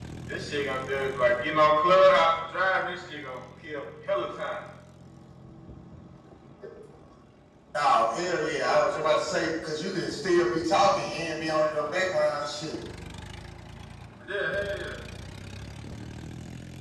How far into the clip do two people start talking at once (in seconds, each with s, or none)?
none